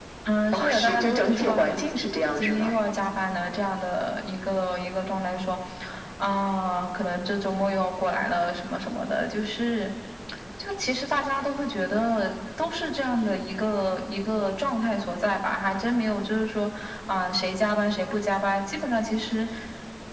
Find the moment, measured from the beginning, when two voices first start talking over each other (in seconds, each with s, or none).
0.5 s